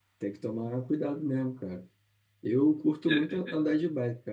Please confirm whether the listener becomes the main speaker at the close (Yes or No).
No